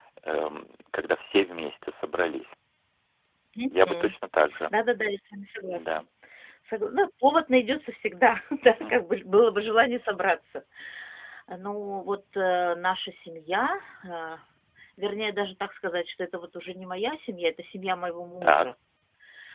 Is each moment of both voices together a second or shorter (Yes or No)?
Yes